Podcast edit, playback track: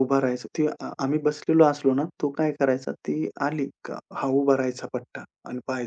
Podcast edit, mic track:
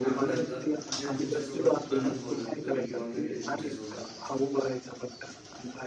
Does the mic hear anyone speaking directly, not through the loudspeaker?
Yes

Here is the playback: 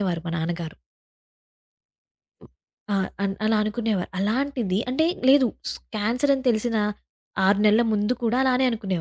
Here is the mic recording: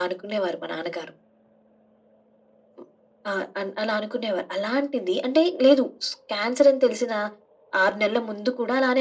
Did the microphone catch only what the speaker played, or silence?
Yes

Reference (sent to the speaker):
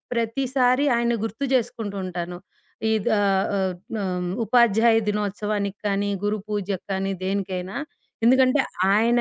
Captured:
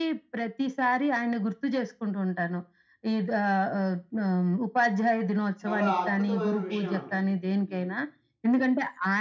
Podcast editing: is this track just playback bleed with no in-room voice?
No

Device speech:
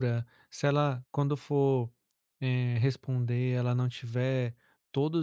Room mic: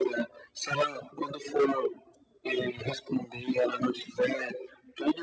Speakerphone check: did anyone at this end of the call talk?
No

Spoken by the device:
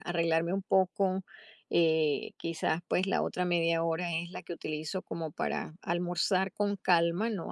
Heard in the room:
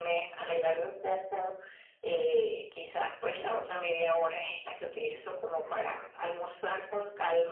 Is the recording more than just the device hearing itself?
Yes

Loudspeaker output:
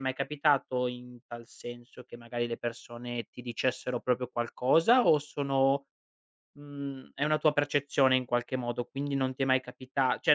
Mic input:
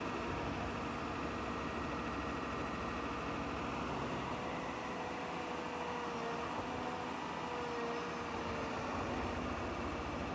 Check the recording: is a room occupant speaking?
No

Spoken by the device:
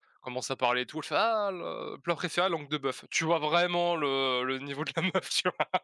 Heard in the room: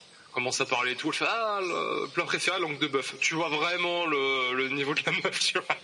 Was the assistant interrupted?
No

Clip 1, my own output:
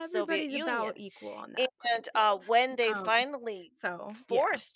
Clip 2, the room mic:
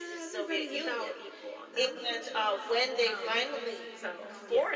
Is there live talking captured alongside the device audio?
Yes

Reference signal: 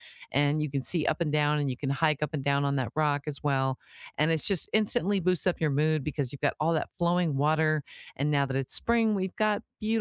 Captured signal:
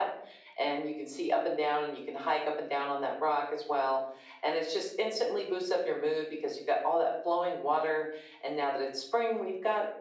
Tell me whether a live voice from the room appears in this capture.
No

